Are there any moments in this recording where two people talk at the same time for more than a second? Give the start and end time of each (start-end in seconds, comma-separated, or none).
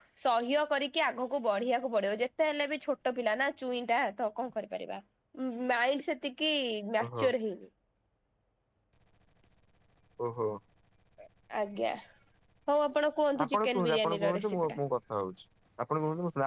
13.4-14.8